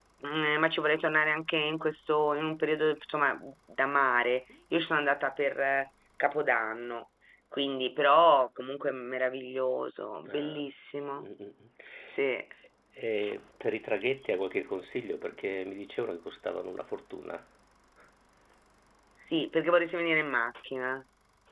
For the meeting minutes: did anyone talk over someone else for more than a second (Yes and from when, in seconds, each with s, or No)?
No